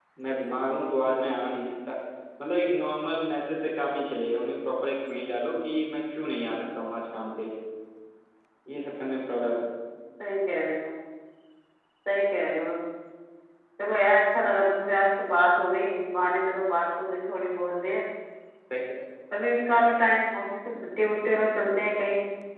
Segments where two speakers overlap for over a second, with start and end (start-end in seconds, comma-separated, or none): none